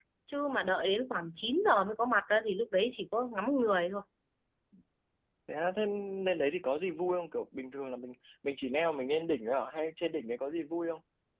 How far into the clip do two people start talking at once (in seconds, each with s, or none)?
none